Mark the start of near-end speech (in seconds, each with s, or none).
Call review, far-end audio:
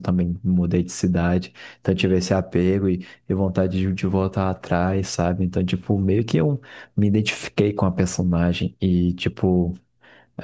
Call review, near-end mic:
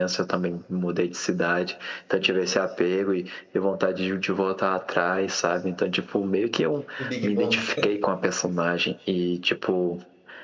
7.0 s